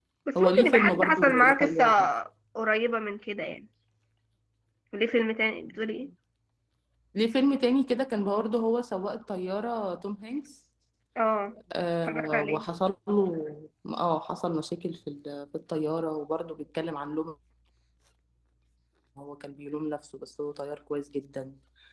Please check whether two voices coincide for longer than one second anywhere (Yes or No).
Yes